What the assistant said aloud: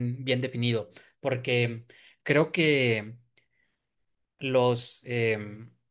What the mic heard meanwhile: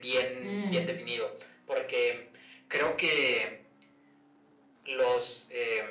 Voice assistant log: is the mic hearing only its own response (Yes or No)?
No